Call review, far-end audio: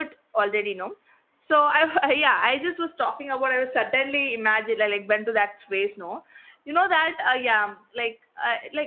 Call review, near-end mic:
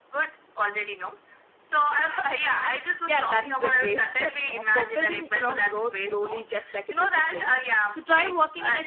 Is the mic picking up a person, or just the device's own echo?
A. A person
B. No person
A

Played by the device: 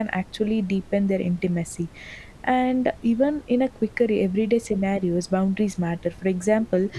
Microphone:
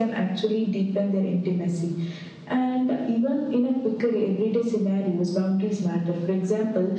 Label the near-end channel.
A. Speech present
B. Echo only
B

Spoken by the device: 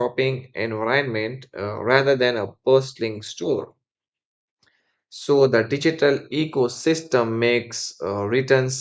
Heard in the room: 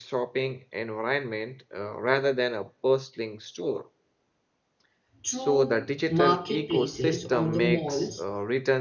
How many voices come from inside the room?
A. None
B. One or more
B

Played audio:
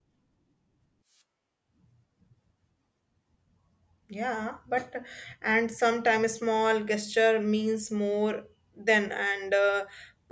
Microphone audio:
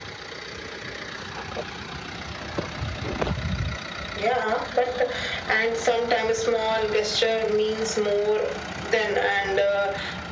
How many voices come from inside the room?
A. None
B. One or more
A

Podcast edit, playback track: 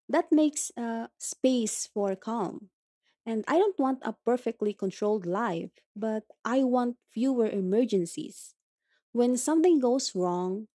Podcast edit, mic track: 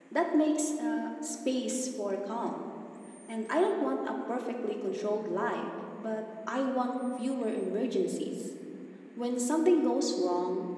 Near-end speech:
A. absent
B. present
A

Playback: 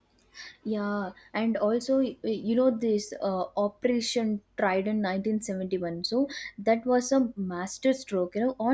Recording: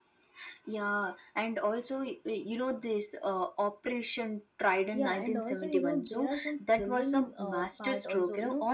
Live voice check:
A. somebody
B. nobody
A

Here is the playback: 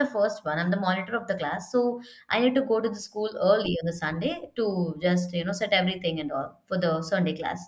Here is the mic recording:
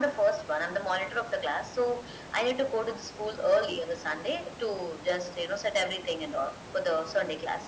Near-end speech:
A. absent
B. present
A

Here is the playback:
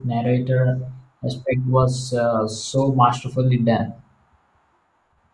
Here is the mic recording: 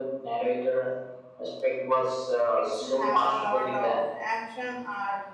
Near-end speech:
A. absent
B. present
B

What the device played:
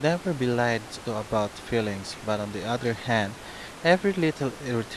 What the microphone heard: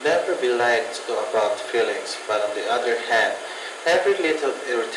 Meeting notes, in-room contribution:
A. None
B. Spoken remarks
A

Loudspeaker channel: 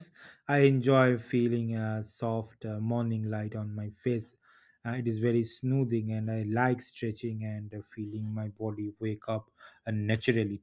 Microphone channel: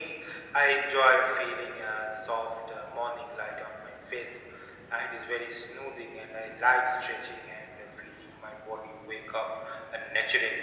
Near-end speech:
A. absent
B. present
A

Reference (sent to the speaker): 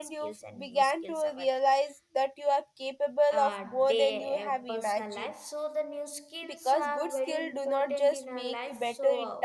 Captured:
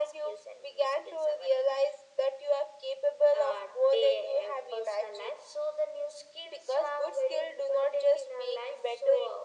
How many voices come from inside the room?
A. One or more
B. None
B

